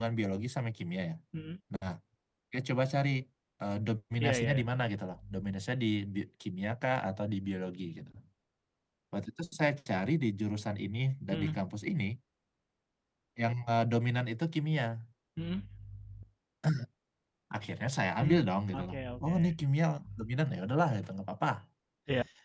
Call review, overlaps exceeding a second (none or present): present